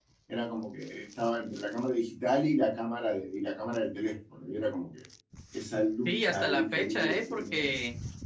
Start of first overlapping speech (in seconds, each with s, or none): 6.0 s